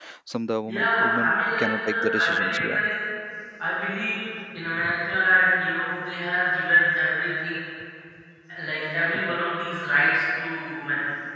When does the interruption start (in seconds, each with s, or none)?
0.7 s